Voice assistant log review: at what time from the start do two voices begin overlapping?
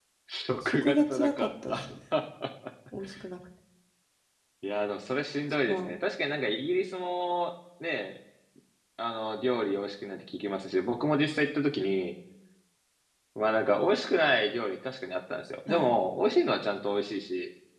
1 s

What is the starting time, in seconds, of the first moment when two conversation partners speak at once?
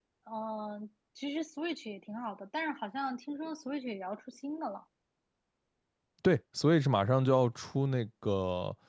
none

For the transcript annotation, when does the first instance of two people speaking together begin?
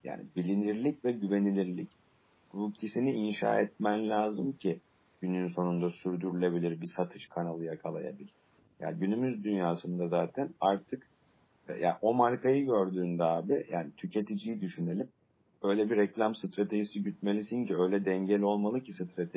none

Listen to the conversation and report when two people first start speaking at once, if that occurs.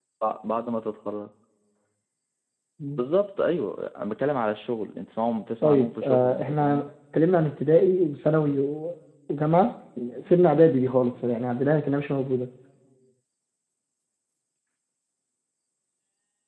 6 s

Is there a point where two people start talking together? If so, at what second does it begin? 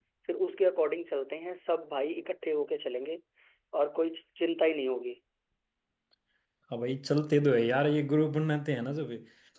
none

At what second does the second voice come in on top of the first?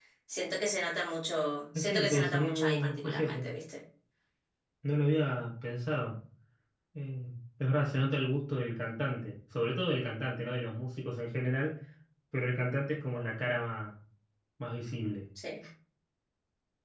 2 s

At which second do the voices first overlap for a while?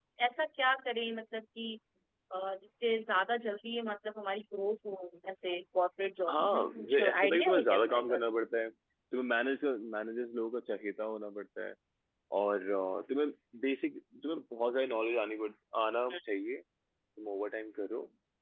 6 s

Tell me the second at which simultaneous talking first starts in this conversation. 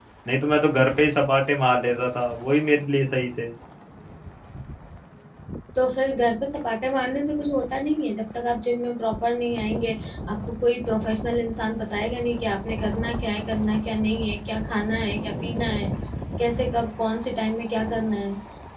none

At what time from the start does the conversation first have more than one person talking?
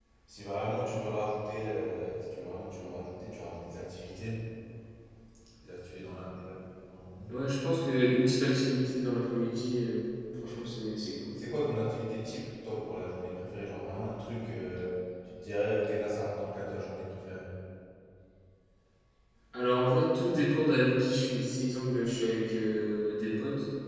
none

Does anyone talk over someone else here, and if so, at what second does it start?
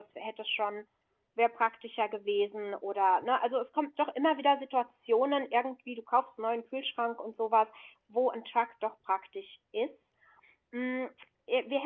none

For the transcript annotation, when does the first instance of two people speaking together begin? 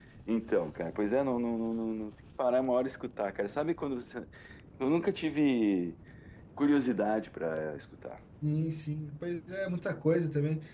none

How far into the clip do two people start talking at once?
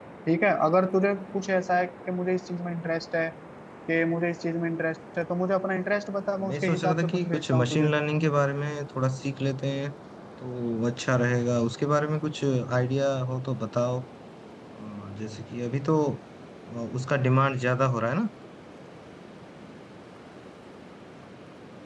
6 s

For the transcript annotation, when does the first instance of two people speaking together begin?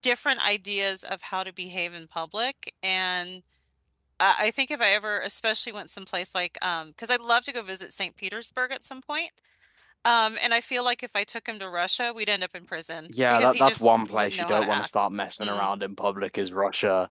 13 s

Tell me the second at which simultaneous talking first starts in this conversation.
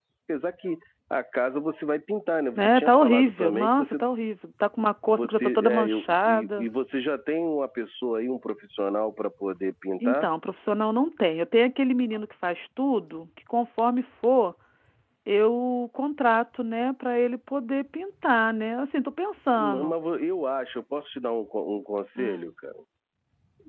3 s

